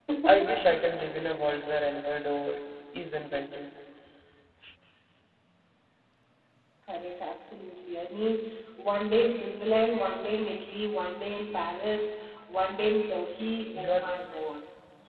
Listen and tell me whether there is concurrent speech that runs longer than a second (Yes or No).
No